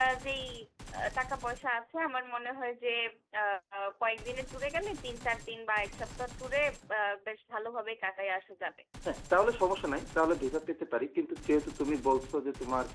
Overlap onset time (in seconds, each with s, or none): none